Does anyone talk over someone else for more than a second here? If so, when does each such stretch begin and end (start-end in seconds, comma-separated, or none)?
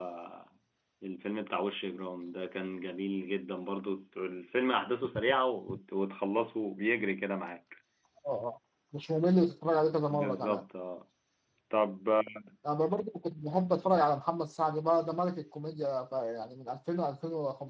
none